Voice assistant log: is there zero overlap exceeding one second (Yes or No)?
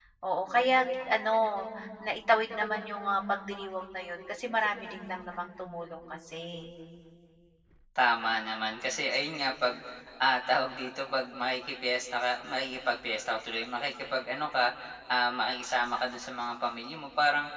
Yes